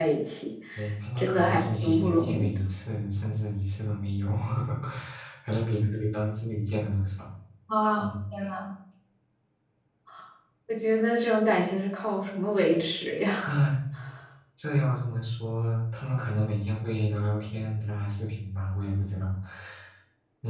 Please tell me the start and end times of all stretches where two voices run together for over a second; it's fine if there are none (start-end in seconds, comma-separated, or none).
1.2-2.6